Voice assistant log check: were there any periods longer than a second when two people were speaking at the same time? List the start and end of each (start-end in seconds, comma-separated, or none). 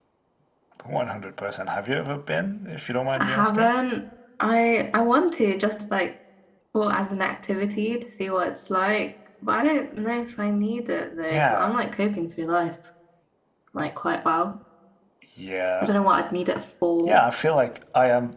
none